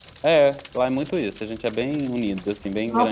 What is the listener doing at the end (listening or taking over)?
taking over